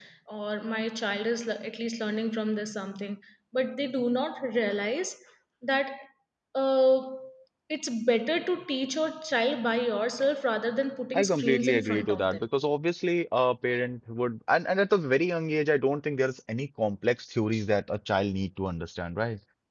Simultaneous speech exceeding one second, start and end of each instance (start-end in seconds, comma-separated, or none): 11.1-12.4